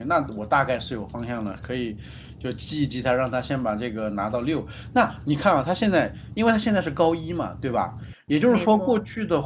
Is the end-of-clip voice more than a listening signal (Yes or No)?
No